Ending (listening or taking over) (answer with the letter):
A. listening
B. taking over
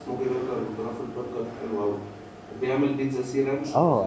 B